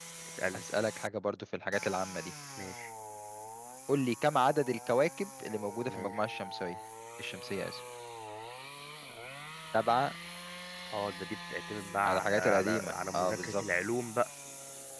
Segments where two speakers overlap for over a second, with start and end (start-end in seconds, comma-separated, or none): 12.0-13.6